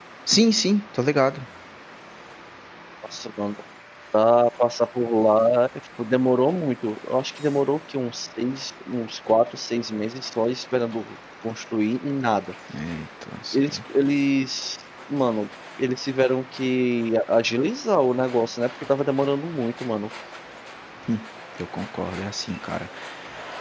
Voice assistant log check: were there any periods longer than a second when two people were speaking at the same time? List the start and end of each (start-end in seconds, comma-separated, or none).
none